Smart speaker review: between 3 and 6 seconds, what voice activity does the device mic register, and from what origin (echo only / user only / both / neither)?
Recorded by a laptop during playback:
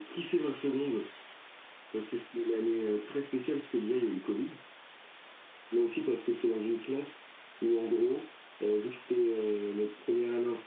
echo only